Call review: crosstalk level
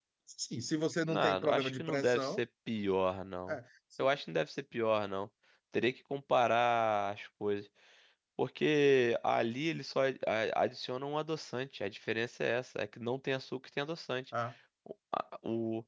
present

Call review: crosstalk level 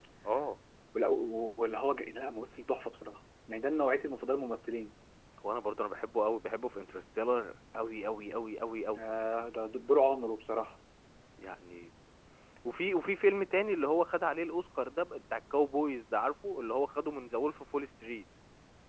none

